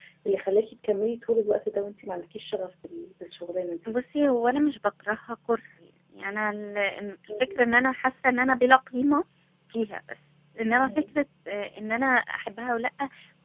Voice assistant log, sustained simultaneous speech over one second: none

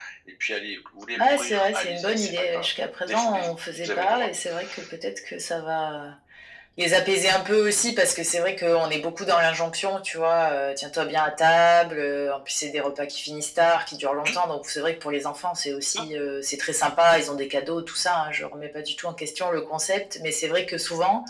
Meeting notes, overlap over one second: present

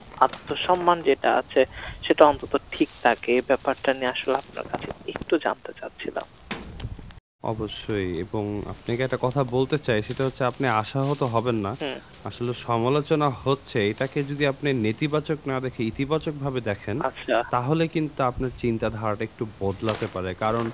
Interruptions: none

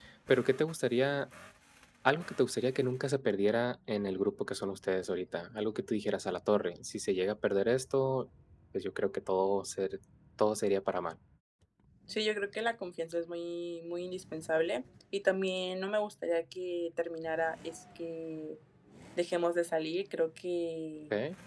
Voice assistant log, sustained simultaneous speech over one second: none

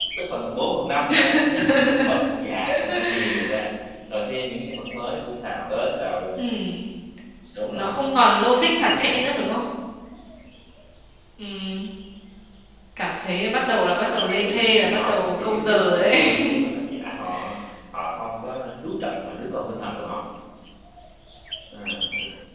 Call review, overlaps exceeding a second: present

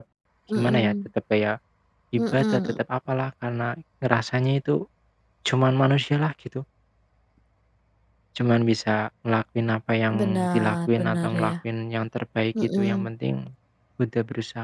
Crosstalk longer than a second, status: present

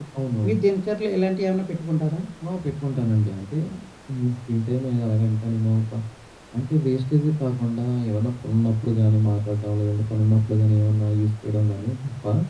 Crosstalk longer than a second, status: none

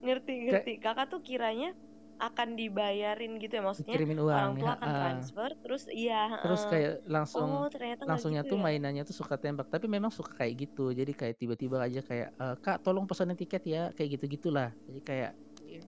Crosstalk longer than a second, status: present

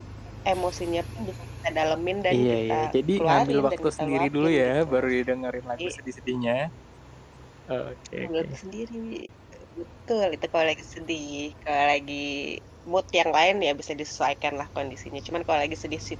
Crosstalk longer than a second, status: present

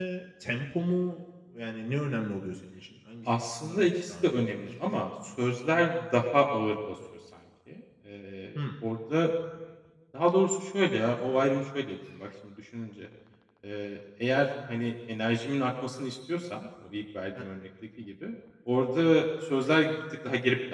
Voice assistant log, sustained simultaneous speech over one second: present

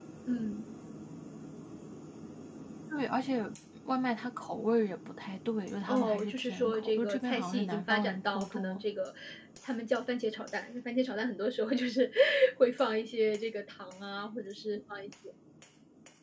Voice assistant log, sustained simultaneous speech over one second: present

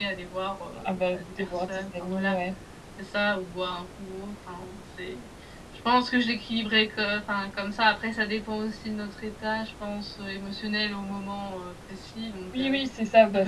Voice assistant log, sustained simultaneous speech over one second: present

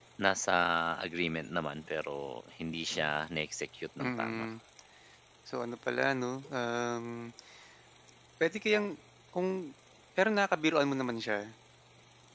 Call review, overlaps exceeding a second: none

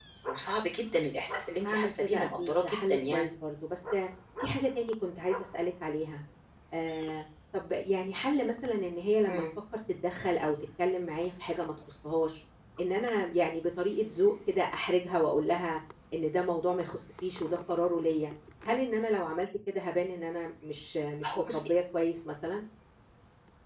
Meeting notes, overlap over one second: present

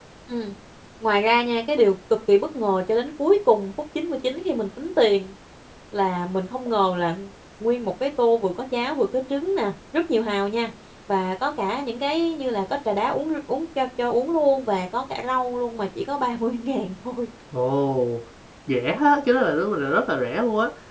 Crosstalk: none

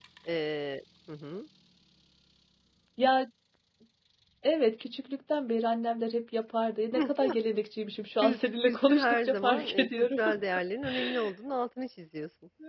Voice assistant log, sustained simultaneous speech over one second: present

